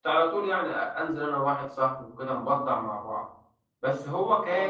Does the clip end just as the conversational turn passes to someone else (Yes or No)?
Yes